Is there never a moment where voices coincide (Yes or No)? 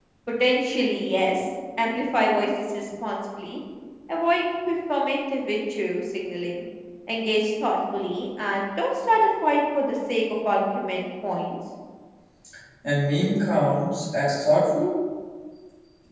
Yes